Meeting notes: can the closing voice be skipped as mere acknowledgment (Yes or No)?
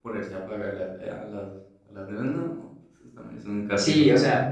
No